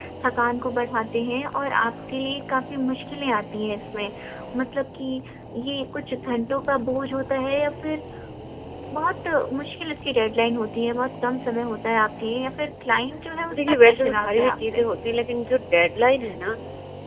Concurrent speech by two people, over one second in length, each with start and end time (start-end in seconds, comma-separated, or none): 13.6-14.8